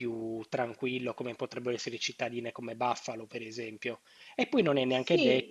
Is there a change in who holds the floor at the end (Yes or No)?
No